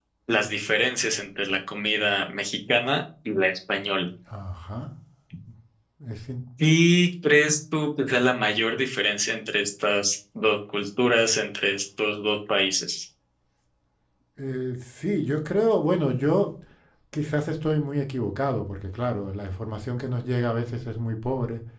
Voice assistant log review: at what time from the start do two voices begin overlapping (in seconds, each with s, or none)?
none